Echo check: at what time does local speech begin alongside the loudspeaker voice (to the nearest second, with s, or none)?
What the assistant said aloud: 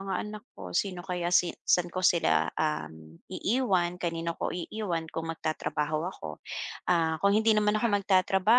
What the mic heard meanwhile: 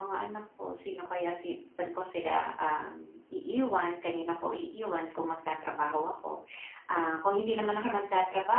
none